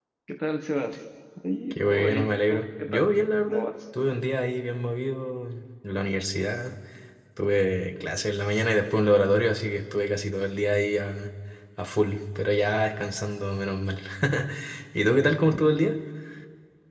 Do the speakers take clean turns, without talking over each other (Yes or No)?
No